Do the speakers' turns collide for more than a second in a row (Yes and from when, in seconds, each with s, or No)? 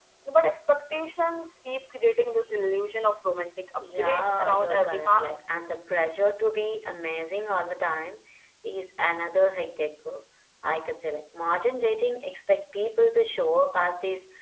Yes, from 3.8 s